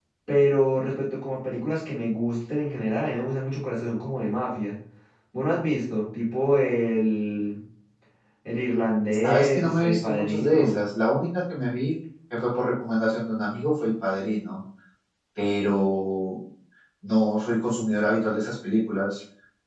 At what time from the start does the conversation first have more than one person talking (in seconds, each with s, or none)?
9.2 s